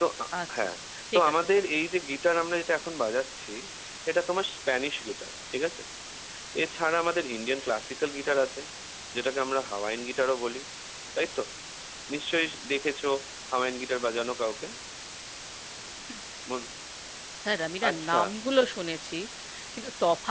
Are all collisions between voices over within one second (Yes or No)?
Yes